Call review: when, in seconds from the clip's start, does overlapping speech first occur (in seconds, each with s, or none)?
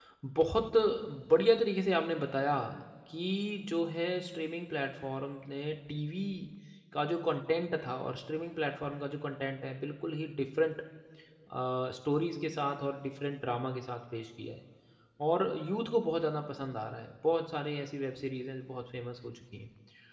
none